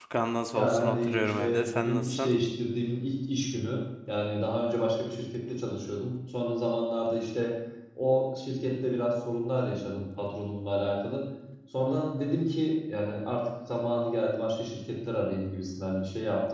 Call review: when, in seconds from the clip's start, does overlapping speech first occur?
1 s

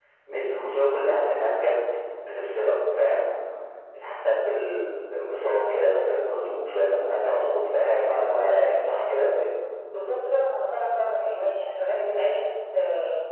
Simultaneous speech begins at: none

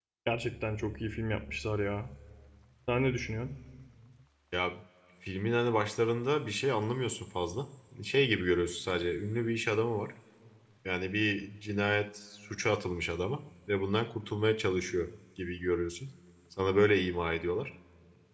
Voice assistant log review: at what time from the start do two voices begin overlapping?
none

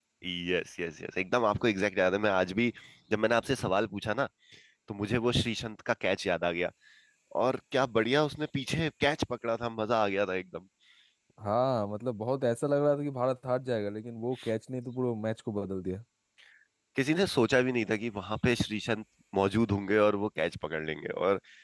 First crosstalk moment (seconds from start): none

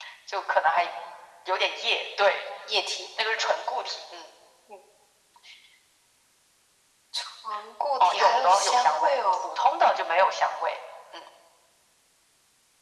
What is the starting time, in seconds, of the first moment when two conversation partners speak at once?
8 s

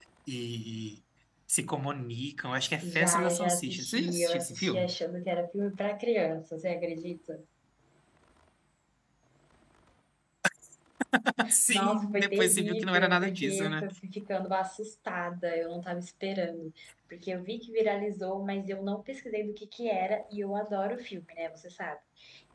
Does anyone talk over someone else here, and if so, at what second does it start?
3 s

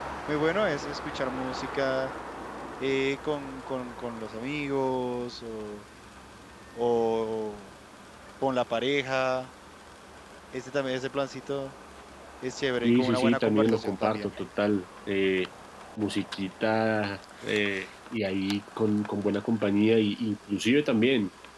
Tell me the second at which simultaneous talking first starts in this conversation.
13 s

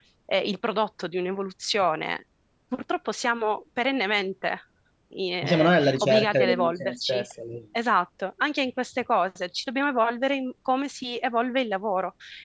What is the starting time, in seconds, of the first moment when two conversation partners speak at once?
5 s

